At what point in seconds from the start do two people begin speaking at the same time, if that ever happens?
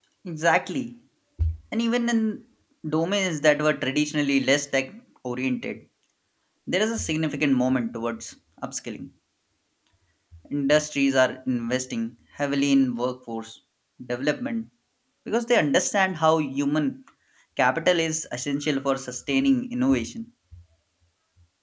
none

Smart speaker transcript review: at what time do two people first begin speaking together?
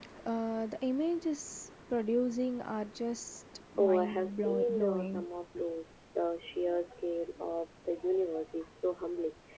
3.8 s

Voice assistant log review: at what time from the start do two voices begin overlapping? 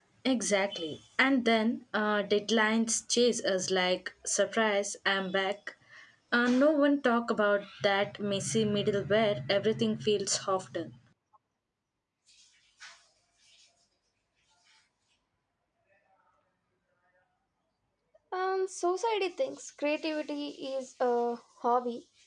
none

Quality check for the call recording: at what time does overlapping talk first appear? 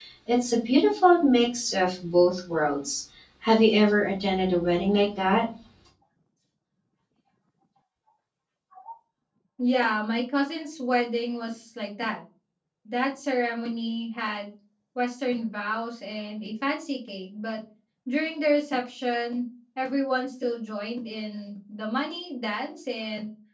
none

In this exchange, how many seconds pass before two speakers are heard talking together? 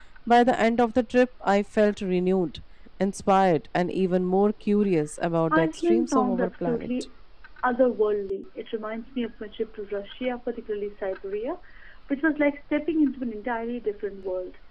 5.5 s

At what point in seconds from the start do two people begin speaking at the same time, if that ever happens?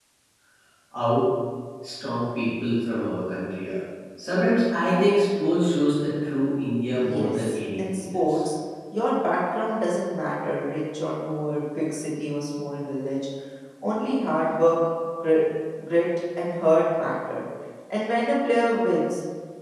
6.9 s

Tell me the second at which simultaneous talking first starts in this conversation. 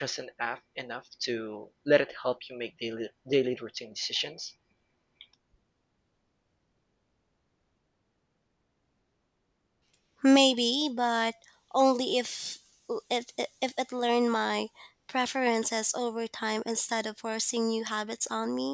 none

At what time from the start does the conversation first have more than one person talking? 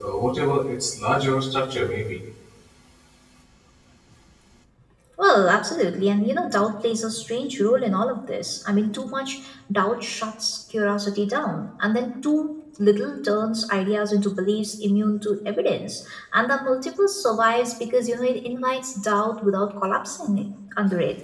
none

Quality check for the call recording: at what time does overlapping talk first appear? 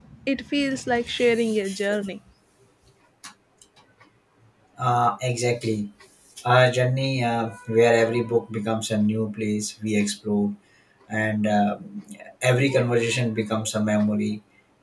none

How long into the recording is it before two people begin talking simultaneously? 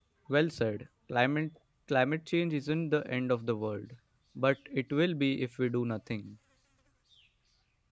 none

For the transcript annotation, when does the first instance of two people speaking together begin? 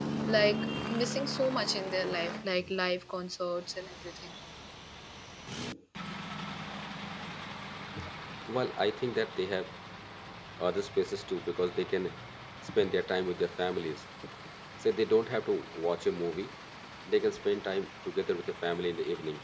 none

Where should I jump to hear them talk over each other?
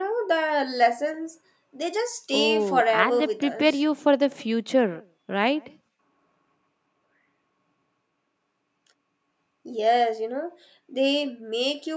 2.3 s

